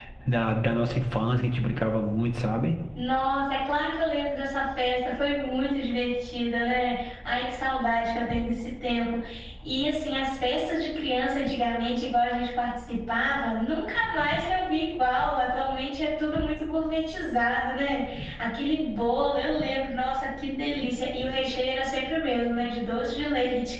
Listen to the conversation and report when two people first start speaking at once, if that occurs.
none

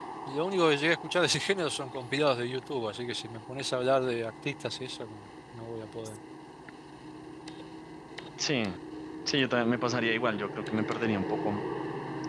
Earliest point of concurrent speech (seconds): none

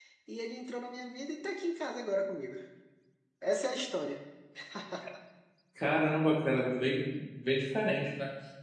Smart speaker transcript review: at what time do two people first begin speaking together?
none

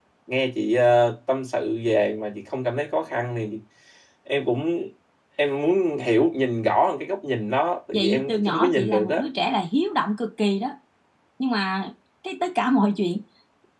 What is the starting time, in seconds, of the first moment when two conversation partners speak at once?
7.9 s

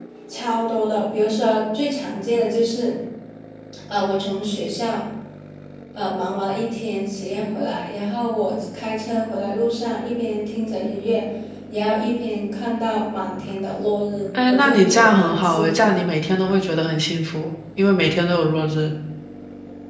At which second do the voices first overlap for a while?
14.3 s

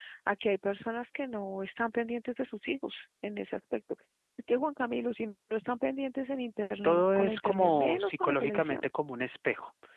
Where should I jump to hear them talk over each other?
6.8 s

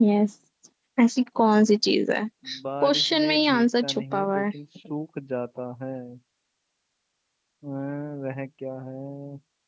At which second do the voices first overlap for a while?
2.8 s

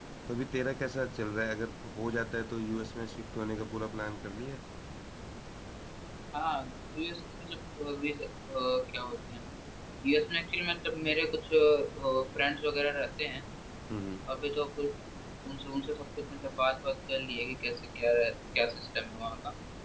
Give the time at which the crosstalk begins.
none

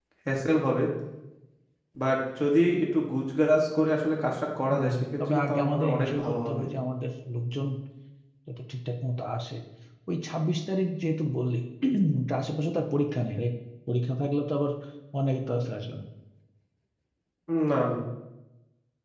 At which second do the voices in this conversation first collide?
4.7 s

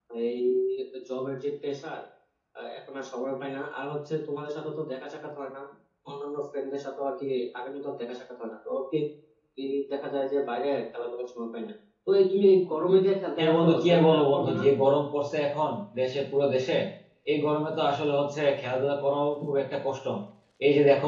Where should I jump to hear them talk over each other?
13.4 s

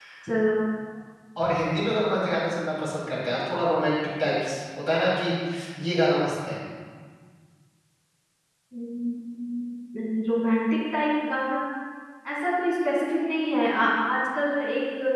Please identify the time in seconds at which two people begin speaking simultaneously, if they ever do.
none

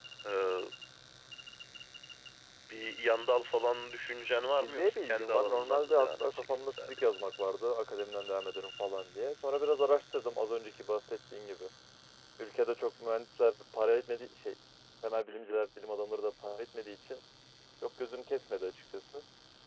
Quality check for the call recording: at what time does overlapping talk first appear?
4.6 s

